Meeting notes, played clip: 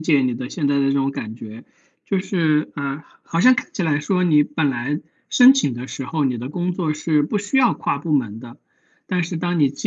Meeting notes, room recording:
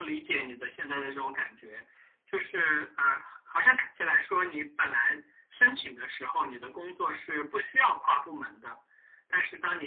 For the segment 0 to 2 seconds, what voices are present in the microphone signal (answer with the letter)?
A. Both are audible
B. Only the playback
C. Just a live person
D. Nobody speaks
B